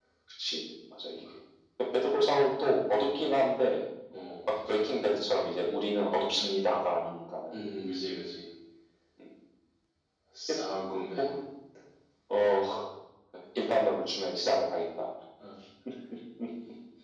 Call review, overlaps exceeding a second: none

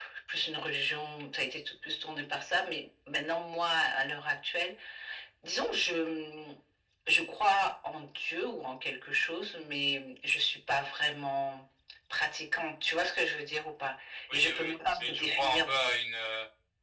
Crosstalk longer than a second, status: present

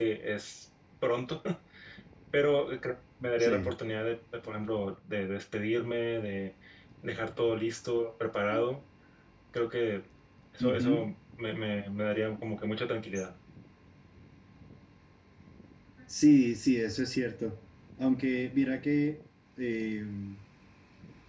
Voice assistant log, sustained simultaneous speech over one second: none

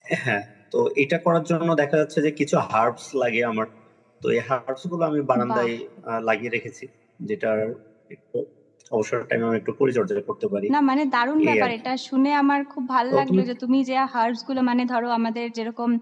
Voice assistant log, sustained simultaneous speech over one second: none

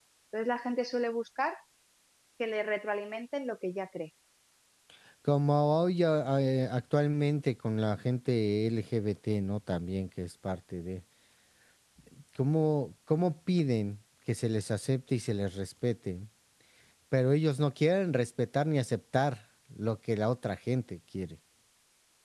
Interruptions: none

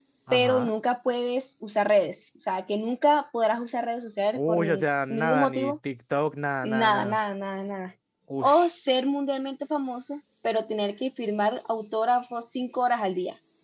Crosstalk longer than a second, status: present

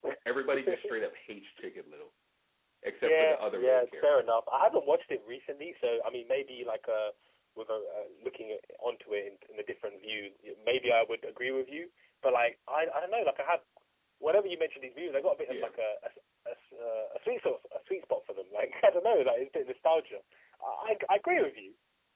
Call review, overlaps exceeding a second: present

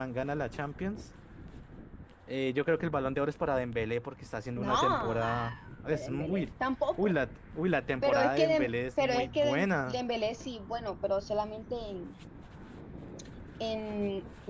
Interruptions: present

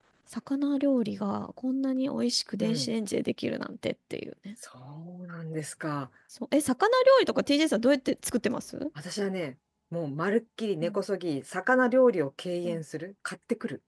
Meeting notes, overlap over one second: none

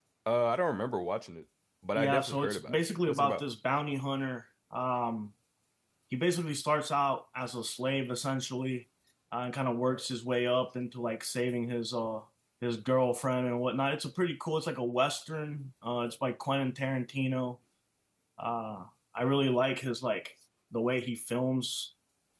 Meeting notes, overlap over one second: present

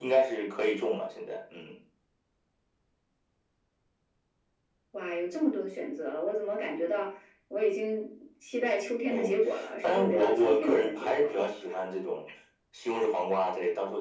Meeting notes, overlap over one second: present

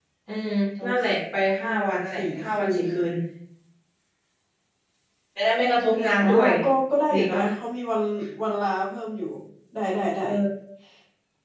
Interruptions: present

